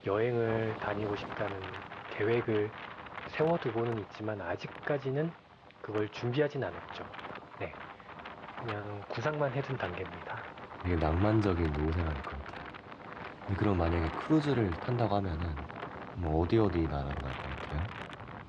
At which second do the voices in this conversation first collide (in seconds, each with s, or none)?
none